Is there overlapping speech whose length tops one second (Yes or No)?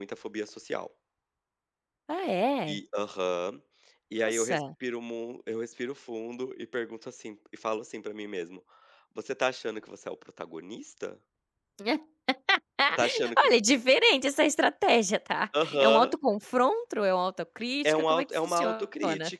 Yes